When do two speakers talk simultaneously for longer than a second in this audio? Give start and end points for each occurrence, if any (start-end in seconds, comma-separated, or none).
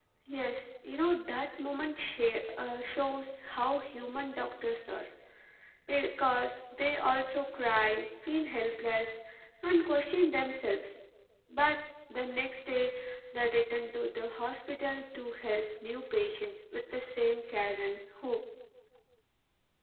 none